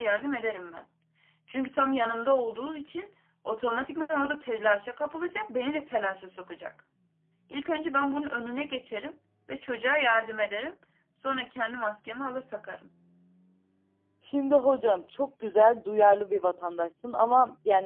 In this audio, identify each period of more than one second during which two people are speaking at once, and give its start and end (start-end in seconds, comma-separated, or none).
none